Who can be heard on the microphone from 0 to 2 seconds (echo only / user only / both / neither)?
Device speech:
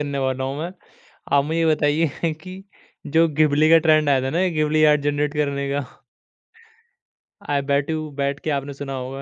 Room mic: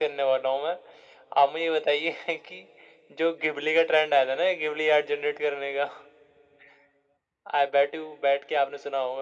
echo only